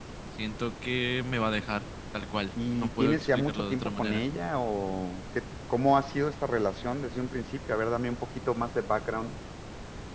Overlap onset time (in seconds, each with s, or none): 2.6 s